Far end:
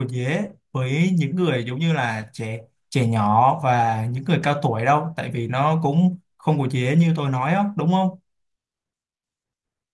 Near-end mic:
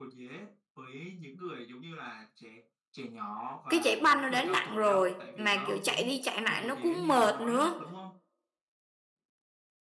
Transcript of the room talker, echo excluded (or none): cái chạy banh nó đã nặng rồi mà kiểu chạy đi chạy lại nó cũng mệt nữa